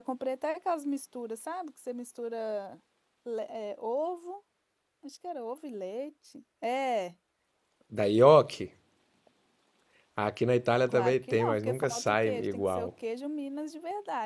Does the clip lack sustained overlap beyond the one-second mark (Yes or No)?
No